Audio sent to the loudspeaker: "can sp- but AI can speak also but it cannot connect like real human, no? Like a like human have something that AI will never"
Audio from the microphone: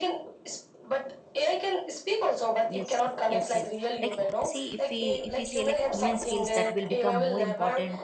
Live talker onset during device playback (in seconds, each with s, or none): 2.7 s